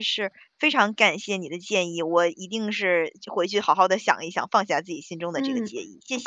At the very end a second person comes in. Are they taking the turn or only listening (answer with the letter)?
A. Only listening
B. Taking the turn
B